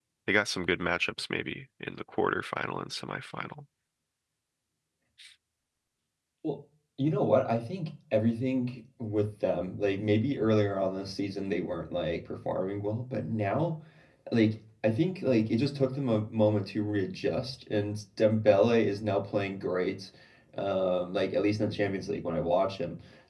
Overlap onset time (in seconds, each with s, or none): none